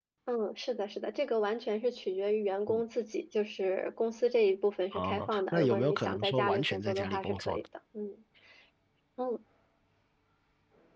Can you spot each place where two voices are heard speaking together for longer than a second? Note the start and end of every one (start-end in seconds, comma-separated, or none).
4.9-7.6